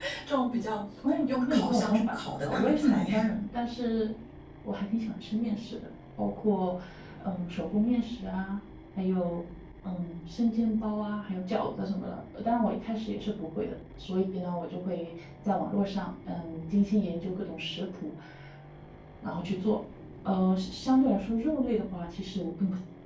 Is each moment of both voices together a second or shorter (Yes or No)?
No